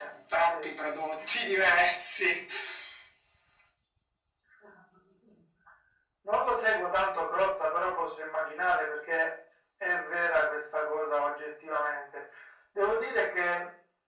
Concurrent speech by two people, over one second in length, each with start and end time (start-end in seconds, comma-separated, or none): none